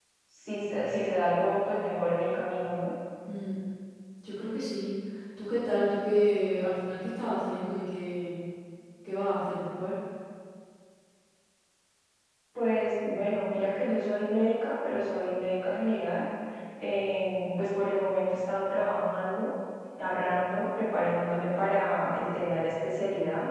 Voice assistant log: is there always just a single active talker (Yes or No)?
Yes